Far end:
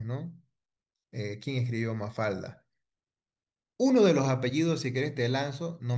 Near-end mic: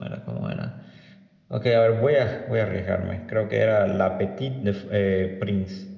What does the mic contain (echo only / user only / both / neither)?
user only